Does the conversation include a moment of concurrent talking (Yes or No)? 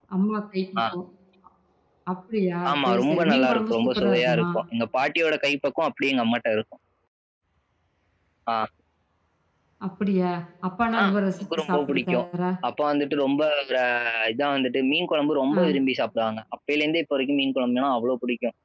Yes